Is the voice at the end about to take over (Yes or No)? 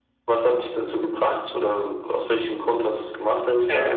Yes